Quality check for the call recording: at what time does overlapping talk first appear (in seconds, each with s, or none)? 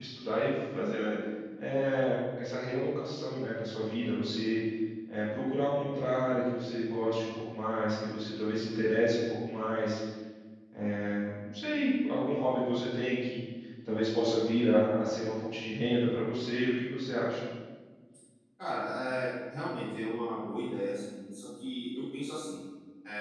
none